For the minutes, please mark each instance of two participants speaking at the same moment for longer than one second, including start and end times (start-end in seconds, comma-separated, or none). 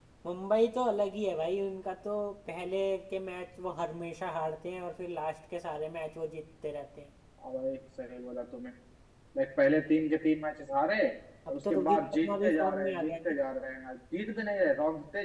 11.5-13.4